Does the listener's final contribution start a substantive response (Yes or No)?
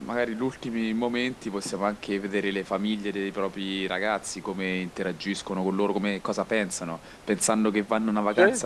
No